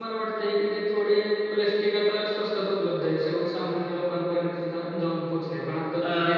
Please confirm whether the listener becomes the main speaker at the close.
No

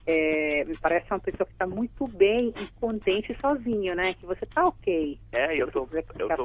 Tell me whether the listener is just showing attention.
No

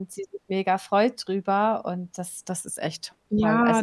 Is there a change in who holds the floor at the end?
Yes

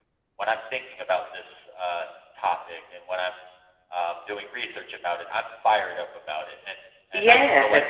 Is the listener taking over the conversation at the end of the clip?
Yes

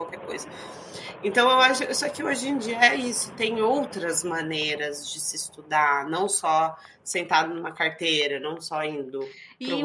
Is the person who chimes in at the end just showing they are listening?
No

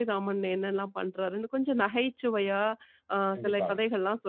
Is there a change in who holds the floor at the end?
No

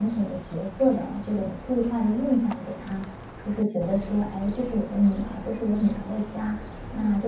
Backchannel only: Yes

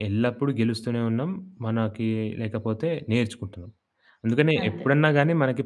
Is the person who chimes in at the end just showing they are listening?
Yes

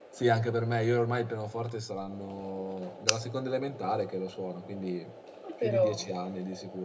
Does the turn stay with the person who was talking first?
Yes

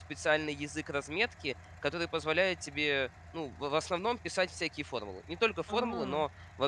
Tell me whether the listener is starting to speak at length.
No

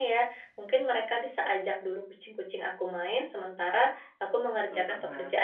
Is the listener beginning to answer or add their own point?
No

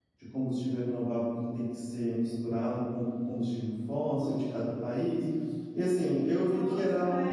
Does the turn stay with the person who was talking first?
No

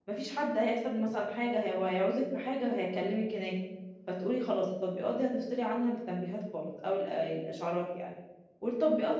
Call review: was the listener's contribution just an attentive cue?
Yes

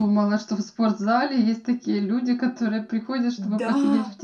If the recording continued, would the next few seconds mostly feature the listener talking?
Yes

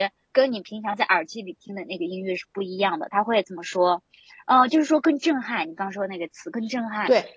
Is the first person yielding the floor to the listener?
Yes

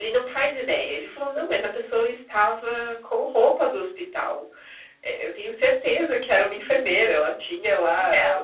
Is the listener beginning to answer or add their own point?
Yes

